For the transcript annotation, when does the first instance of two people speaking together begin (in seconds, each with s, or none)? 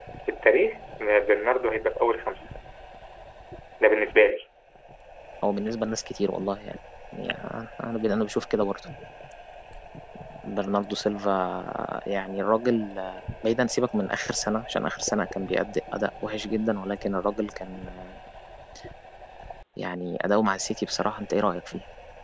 none